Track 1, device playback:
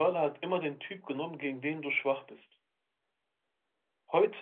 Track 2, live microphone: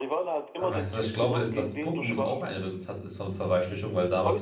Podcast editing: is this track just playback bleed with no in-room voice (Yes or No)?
No